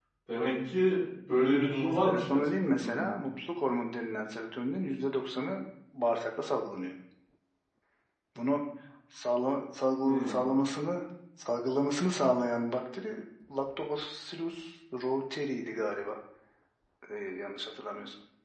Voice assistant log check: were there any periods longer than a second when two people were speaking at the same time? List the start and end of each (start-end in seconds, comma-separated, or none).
1.7-3.1